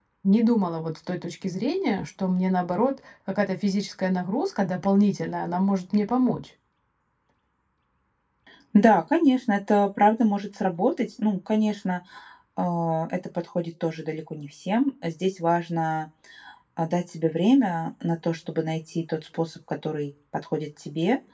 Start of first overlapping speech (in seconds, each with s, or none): none